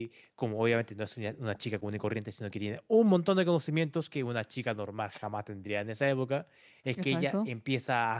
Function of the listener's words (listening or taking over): listening